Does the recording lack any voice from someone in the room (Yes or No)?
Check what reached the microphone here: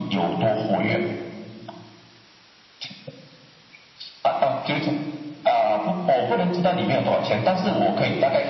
Yes